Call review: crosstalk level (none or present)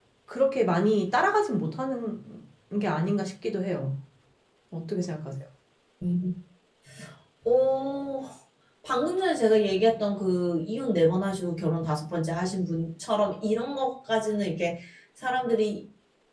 none